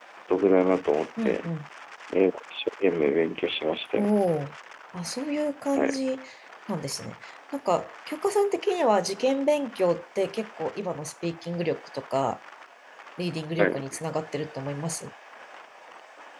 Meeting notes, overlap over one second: none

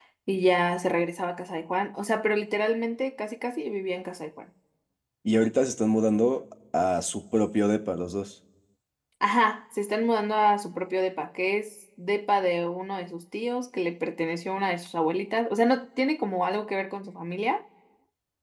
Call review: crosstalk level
none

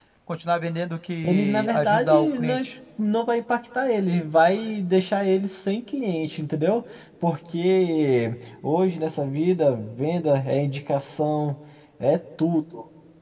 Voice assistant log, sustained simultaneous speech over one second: present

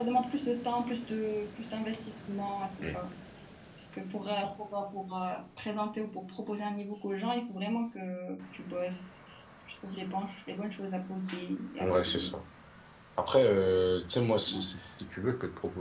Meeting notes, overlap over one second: none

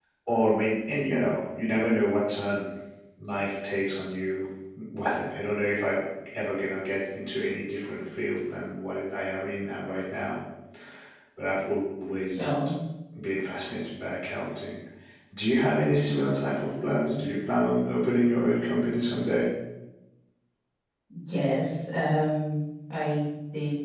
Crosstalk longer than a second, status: none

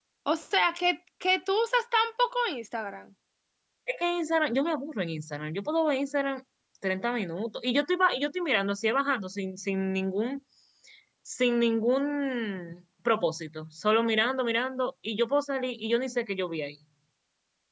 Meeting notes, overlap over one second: none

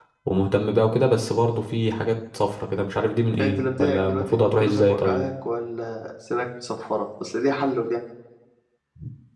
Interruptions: present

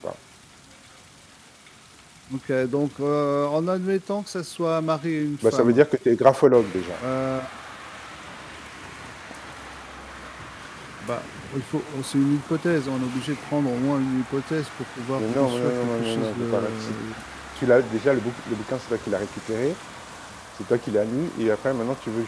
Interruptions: present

